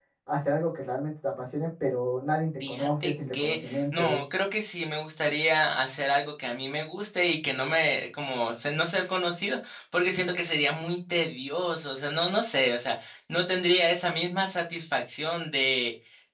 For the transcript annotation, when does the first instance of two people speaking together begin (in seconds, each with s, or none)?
2.6 s